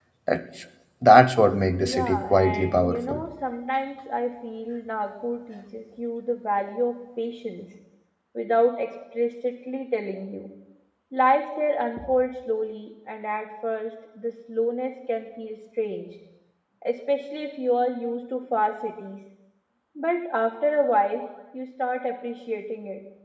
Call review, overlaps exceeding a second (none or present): present